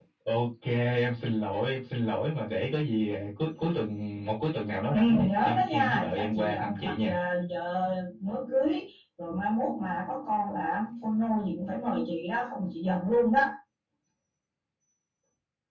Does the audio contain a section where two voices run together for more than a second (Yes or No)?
Yes